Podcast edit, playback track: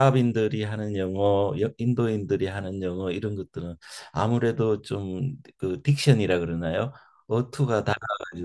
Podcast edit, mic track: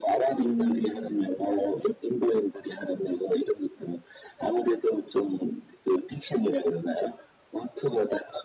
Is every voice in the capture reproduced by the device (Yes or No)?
No